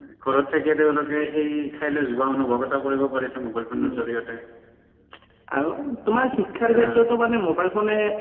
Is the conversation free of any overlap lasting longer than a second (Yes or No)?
Yes